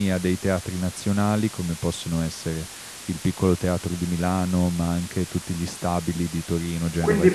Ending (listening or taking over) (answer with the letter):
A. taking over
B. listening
A